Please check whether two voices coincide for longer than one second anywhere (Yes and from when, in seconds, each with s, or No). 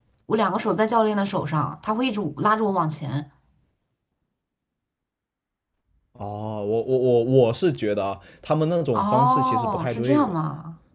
Yes, from 8.9 s